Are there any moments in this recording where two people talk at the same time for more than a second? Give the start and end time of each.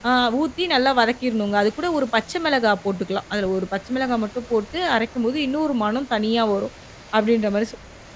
none

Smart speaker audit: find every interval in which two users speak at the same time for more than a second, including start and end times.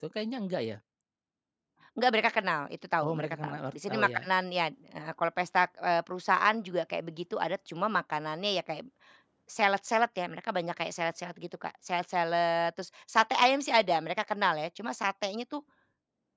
3.0-4.3

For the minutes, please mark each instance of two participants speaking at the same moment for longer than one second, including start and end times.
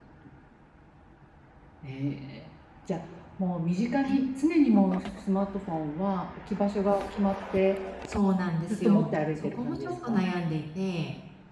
8.7-10.2

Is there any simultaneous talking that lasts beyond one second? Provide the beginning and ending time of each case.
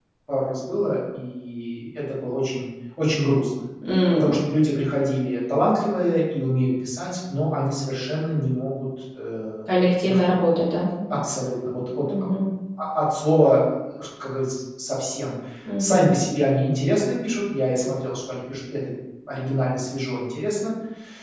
none

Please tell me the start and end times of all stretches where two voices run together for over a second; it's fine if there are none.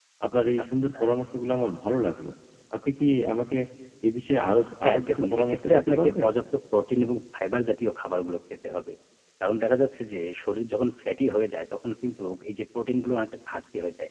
4.8-6.3

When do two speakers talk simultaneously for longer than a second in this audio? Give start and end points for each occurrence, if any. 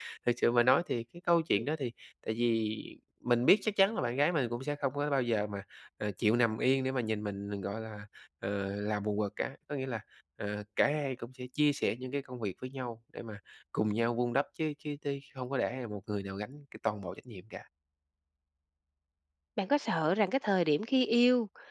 none

